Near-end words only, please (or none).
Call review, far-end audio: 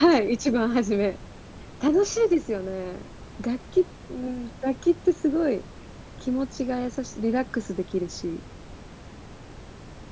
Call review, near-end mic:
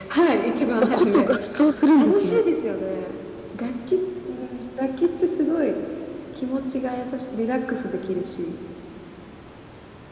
お琴合奏するんですね。